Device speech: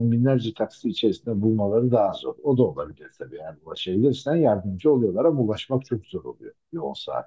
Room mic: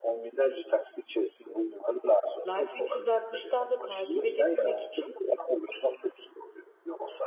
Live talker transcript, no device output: Life 360'tan da takip edebilmek için

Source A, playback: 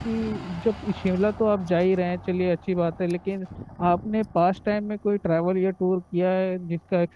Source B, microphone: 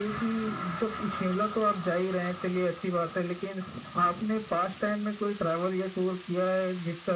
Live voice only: none

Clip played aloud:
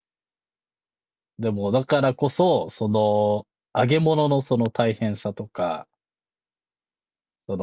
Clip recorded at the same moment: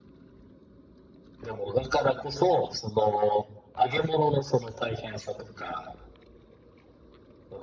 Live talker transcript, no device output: none

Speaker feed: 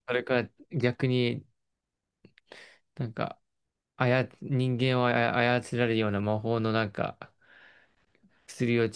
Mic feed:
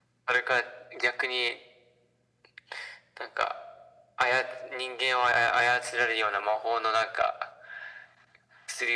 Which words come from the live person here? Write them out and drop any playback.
none

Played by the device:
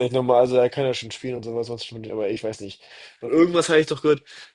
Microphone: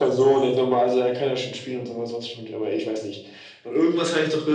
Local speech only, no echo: none

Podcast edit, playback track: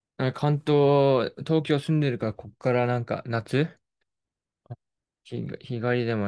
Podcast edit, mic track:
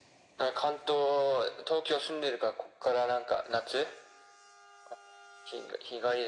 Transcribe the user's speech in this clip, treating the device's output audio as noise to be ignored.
none

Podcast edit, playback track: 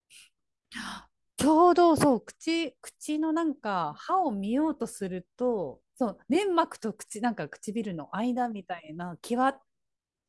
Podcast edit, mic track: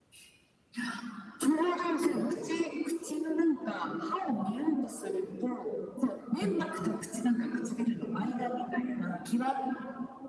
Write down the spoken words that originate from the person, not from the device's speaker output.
うん

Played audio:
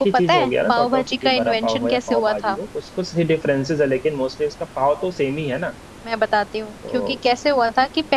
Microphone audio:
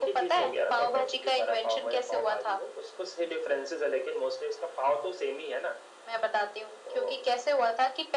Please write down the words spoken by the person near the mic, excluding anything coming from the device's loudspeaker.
none

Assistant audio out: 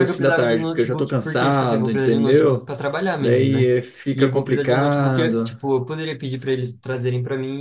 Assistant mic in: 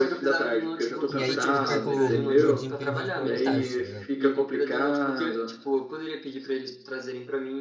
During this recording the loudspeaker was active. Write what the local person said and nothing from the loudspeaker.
E aí, tipo, eu perco, meu desempenho rende pela metade, tá ligado?

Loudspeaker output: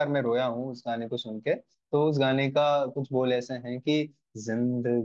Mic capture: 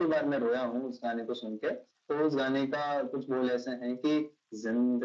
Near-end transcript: none

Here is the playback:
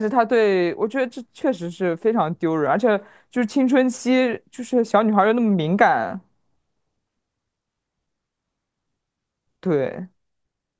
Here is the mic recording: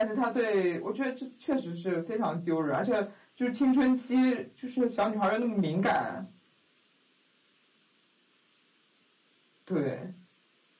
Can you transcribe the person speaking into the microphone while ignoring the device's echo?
none

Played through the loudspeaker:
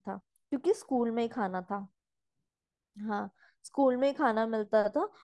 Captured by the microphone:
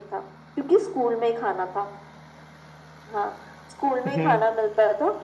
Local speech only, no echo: हम्म

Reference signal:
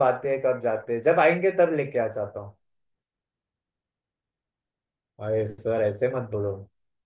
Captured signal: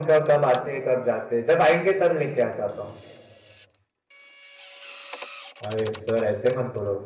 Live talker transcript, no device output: none

